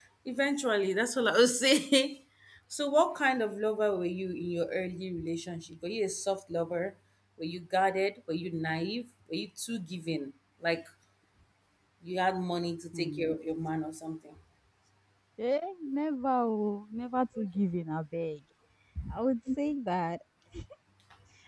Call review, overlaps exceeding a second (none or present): none